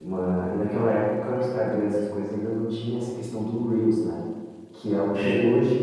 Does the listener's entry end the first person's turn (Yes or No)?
No